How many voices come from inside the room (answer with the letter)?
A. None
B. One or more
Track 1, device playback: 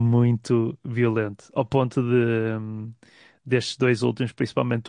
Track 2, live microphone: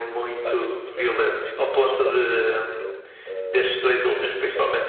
B